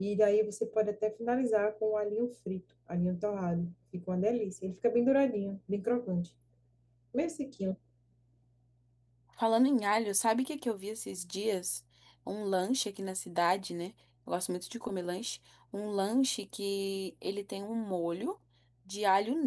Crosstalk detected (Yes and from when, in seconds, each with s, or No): No